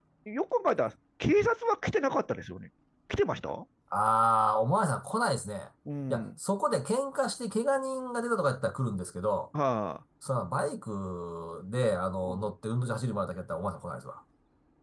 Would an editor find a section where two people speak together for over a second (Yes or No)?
No